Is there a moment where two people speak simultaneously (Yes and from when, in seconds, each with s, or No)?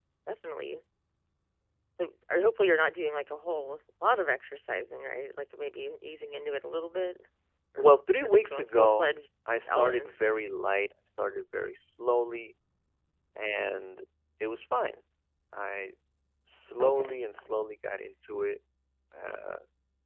Yes, from 7.8 s